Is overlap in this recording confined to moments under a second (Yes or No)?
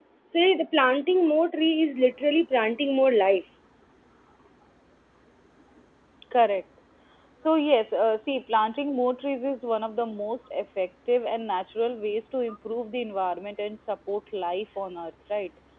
Yes